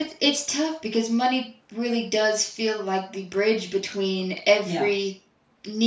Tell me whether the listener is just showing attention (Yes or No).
Yes